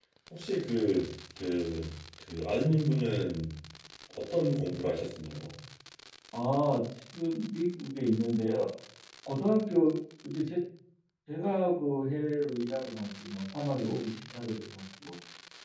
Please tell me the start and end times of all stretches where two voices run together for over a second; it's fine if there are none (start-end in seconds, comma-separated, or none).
none